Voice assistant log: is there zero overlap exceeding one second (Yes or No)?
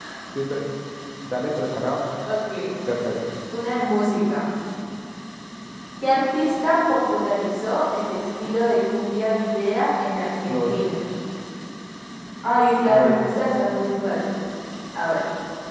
Yes